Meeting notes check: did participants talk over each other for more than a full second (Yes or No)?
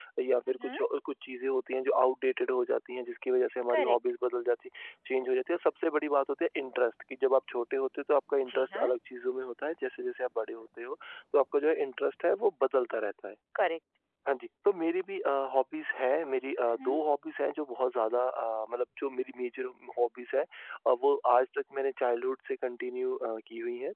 No